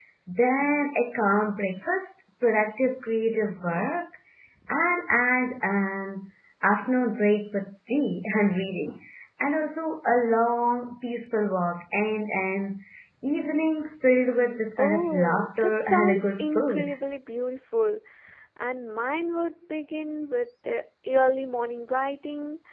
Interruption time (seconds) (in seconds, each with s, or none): 14.8 s